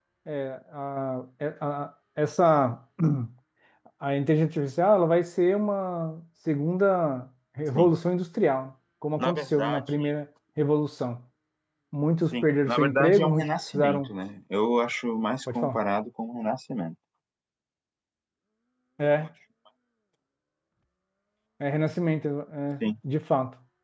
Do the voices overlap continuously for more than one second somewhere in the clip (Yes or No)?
Yes